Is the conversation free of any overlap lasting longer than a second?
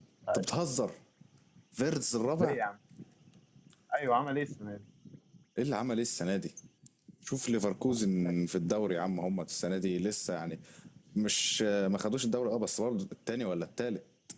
Yes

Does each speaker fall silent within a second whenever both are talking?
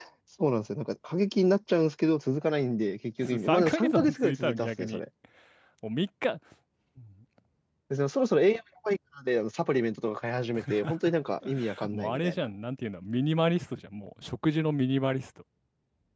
No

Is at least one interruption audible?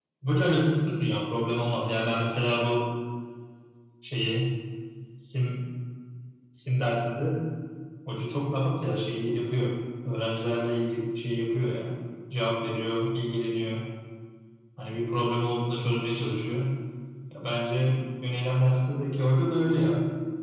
No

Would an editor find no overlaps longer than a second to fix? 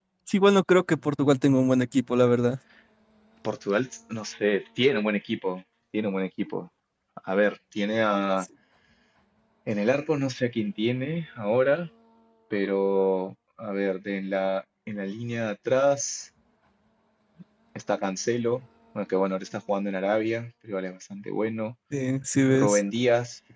Yes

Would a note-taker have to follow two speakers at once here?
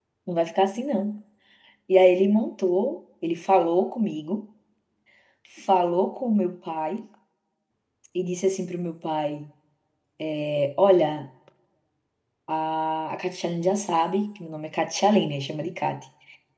No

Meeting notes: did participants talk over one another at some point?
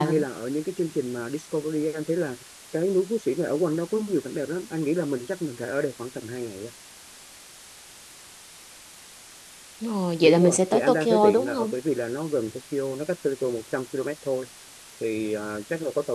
Yes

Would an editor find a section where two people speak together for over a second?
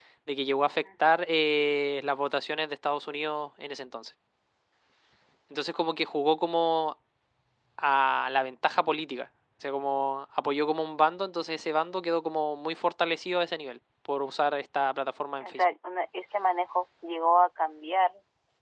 No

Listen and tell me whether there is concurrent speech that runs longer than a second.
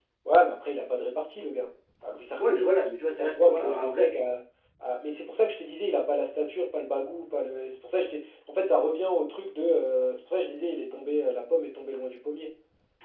Yes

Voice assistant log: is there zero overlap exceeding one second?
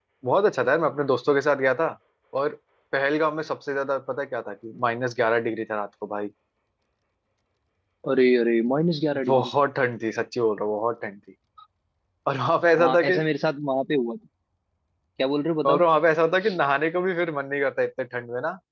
Yes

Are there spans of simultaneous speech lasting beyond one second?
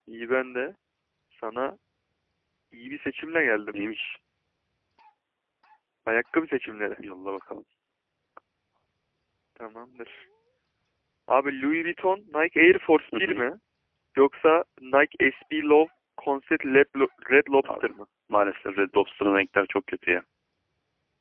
No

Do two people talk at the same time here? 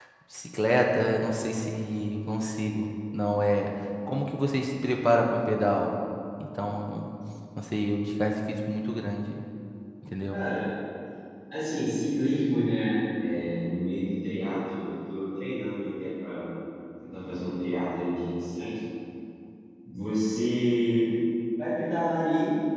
No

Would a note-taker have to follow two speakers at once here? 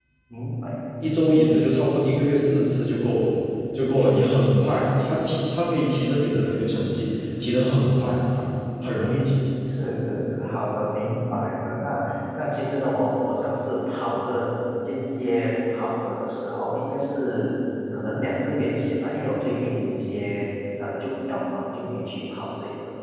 No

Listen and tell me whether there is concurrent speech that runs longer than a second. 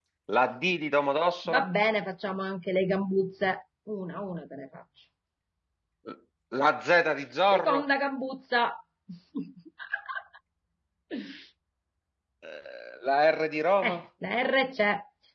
No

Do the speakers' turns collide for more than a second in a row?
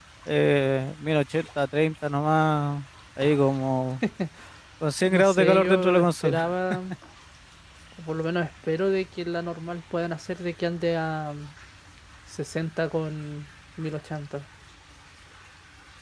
Yes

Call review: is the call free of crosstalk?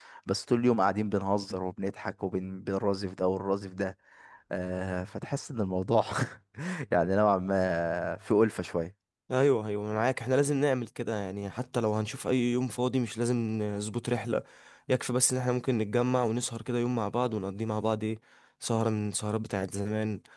Yes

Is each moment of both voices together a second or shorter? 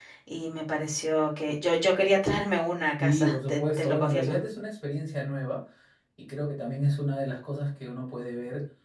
No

